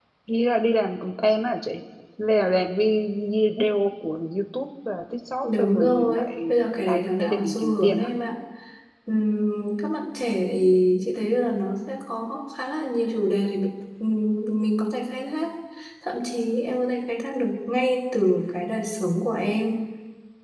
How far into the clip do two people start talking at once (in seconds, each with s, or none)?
5.4 s